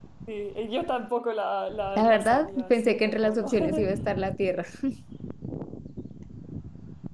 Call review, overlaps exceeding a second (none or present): present